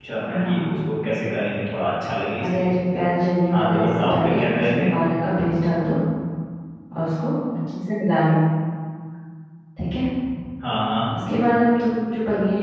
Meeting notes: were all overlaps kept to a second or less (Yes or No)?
No